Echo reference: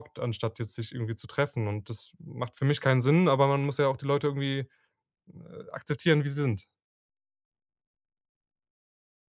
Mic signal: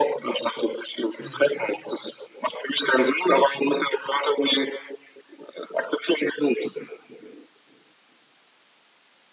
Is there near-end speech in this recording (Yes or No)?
Yes